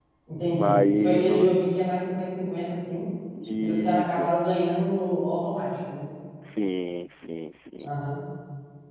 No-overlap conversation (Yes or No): No